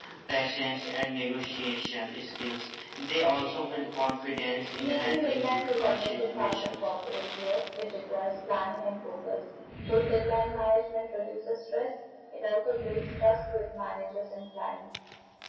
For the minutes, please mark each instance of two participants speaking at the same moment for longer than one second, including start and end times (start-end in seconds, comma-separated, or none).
4.8-6.7